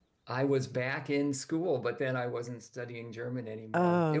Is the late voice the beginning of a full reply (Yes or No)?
No